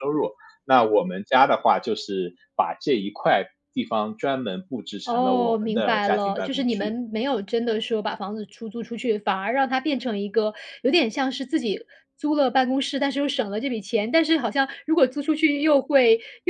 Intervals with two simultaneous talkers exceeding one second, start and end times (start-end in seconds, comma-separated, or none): 5.1-6.9